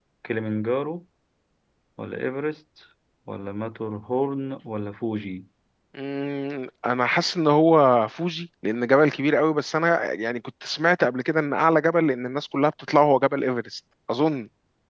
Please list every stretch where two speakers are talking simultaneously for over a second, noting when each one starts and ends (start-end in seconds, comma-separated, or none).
none